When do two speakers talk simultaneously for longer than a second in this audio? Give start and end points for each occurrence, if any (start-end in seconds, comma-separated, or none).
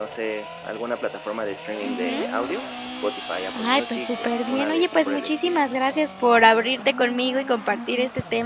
3.6-5.6